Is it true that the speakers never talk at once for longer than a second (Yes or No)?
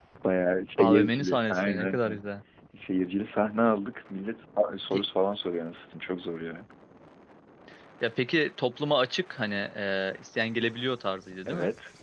No